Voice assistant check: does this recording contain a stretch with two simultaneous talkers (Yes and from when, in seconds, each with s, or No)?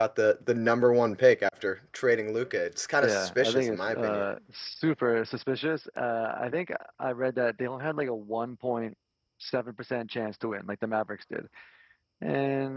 Yes, from 3.0 s